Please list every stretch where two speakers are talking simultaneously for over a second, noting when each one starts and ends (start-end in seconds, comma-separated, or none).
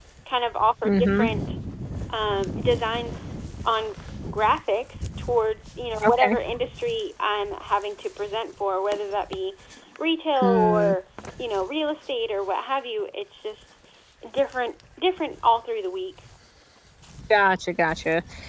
none